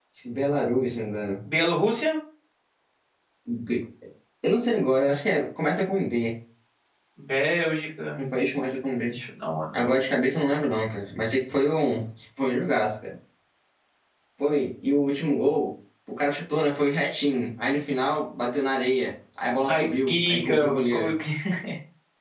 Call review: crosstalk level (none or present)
present